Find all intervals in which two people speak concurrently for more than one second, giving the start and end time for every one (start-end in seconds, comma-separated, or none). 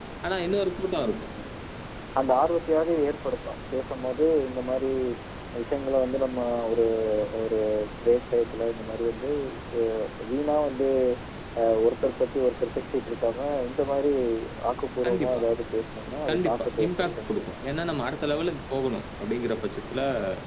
16.3-17.5